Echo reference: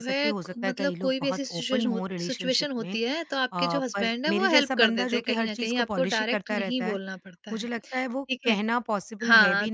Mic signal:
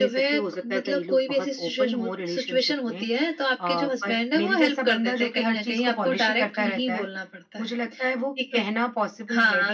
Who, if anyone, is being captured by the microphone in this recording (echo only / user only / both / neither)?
echo only